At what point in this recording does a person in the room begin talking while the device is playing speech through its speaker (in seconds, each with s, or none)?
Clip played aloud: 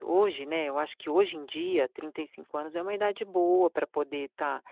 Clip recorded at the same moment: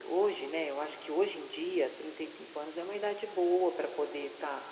none